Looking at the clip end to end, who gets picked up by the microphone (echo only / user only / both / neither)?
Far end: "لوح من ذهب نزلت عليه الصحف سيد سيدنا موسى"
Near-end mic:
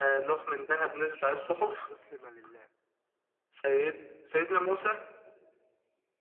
both